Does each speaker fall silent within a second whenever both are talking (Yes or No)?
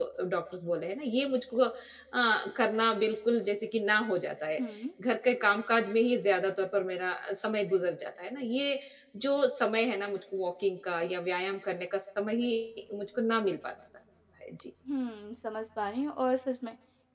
Yes